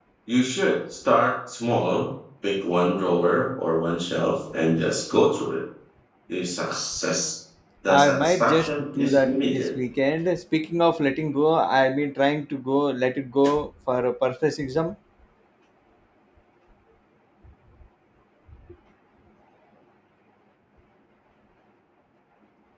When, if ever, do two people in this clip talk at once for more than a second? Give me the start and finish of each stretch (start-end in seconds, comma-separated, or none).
7.9-9.8